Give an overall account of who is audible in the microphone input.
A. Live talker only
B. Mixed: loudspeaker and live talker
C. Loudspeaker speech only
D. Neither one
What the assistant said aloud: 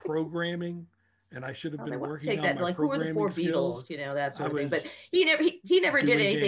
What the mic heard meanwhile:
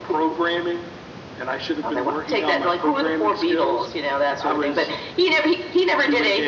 C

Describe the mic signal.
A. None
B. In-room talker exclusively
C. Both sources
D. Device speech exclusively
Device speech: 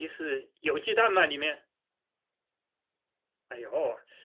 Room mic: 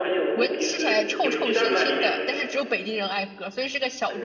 C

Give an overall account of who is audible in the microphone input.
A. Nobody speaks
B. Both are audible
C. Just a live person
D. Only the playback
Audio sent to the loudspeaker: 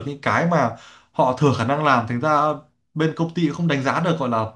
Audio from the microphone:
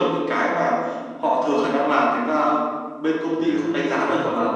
B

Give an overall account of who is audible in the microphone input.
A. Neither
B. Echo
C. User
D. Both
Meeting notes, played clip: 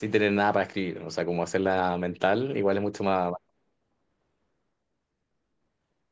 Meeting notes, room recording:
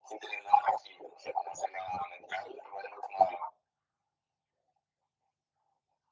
B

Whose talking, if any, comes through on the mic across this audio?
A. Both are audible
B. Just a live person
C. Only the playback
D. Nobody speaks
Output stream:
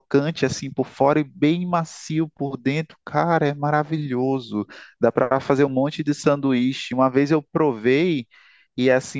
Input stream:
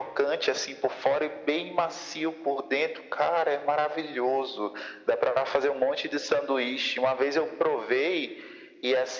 C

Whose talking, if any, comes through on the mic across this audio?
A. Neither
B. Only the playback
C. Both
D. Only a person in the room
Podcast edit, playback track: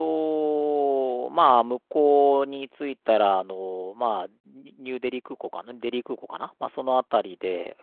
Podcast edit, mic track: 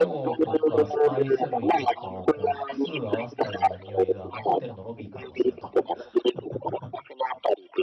C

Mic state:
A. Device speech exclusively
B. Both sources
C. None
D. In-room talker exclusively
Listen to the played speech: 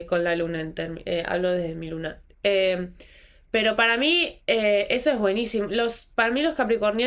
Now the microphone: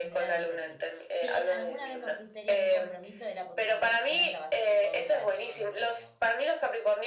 B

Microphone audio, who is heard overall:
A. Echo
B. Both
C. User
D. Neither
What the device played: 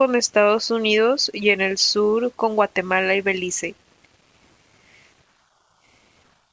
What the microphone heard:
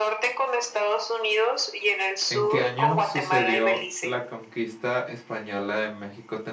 B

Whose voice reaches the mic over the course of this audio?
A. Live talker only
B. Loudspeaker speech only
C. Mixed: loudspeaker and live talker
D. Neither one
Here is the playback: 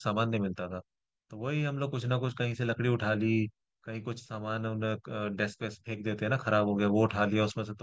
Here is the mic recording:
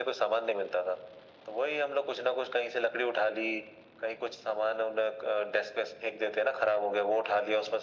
B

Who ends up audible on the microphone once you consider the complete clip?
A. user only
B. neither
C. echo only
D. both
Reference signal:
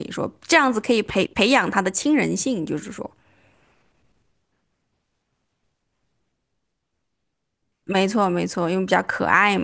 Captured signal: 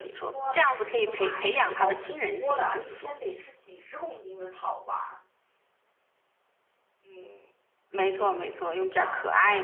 D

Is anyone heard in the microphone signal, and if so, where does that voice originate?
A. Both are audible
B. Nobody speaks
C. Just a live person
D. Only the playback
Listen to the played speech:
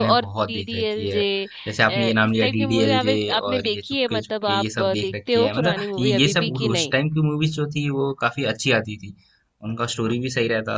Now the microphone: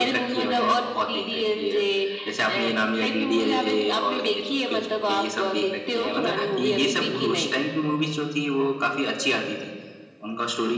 D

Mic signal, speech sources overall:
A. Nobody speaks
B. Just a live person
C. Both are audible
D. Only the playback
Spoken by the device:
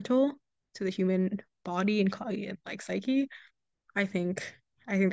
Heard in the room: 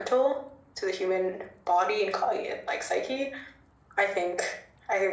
D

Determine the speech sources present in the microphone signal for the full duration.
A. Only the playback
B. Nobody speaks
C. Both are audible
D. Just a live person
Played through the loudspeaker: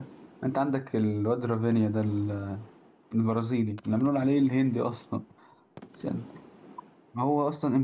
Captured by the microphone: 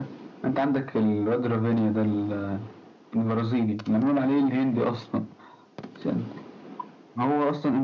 A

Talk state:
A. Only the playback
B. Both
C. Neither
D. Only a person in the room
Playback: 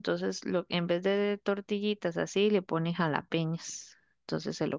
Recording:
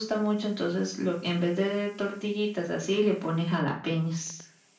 A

